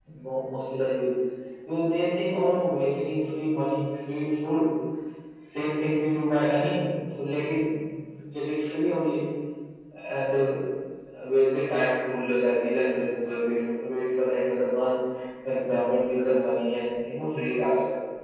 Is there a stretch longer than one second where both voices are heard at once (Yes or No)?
No